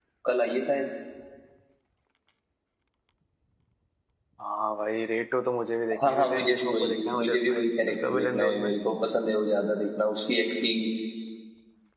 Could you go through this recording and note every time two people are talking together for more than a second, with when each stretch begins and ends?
6.0-8.7

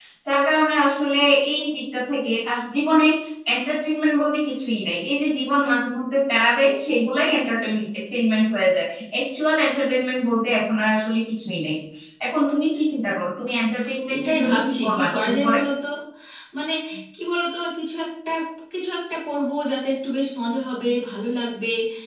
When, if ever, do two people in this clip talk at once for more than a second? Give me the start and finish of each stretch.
14.1-15.6

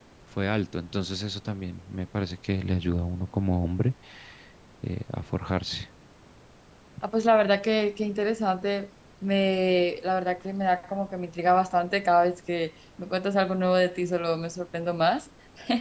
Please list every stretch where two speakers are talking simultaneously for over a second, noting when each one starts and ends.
none

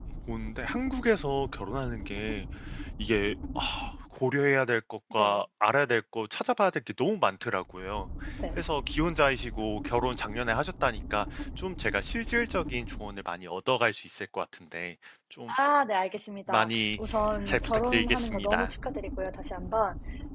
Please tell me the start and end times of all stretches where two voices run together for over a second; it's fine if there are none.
17.5-18.7

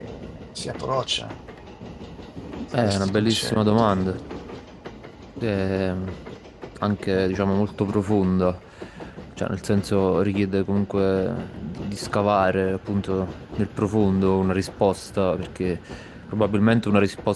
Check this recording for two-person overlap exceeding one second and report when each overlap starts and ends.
2.8-4.2

